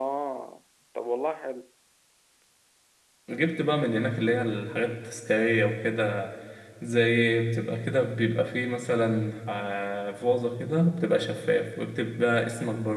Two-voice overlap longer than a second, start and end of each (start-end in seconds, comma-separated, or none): none